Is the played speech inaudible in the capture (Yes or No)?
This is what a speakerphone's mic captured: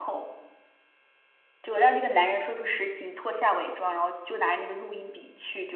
Yes